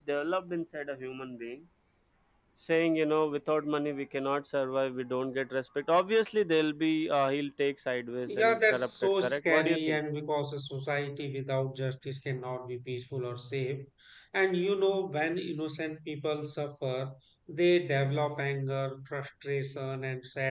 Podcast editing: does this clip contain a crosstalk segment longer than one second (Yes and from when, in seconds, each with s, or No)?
Yes, from 8.3 s